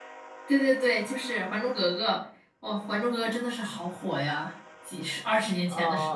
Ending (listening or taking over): taking over